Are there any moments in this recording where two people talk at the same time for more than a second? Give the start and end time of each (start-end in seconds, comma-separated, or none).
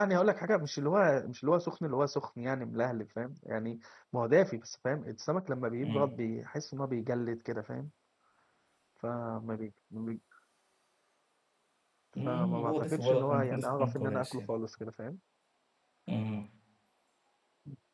12.2-14.5